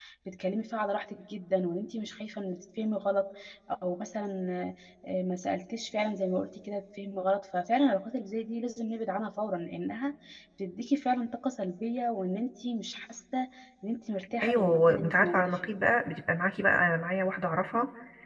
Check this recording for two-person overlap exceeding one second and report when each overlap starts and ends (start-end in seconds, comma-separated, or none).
14.4-15.7